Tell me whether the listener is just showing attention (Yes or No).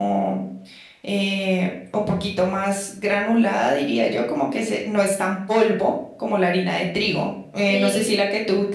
Yes